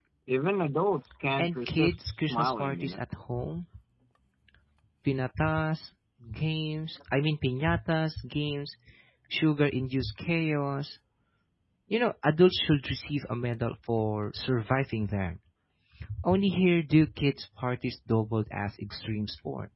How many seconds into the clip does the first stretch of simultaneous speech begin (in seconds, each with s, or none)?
1.4 s